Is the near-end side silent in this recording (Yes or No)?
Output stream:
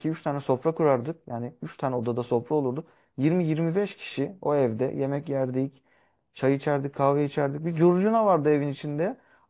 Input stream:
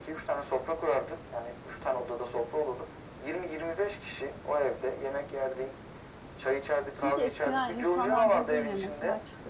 No